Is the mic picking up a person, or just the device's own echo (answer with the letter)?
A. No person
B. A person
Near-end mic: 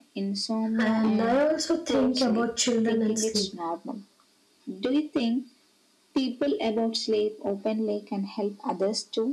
B